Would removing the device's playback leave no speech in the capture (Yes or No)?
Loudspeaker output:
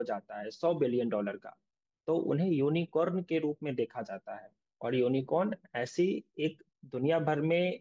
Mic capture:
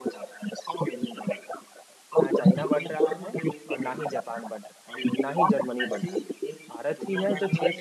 No